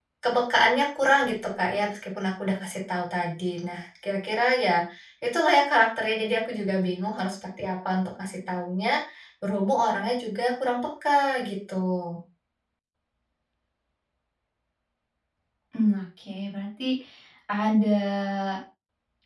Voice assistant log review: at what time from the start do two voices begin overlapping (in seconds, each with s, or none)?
none